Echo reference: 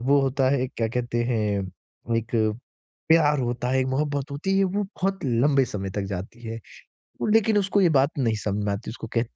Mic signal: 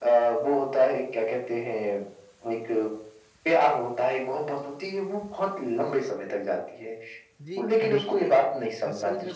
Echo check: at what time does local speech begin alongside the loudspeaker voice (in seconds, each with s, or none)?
7.4 s